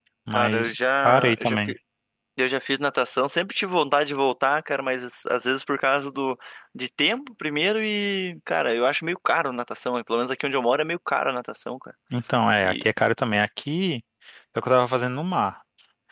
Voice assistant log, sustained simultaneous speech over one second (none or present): present